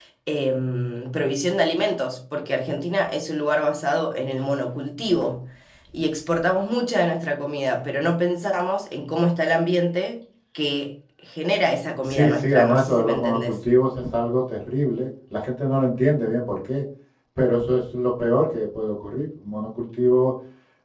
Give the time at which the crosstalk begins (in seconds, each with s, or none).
12.1 s